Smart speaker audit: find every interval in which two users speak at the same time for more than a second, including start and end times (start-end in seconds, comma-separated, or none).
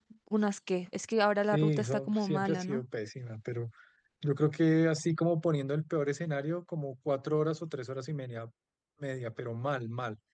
1.5-2.8